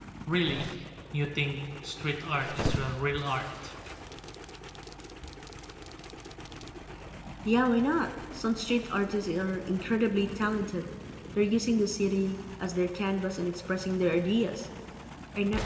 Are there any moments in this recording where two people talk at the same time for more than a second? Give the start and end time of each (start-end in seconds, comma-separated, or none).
none